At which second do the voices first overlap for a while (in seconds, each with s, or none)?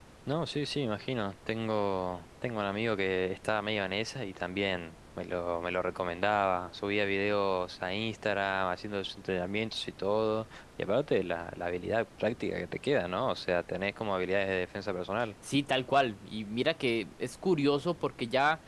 none